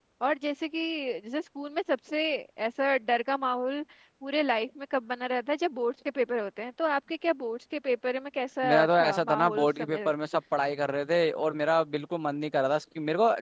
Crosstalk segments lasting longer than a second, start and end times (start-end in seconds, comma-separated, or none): 8.7-10.1